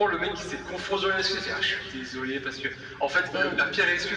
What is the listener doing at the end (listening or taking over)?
listening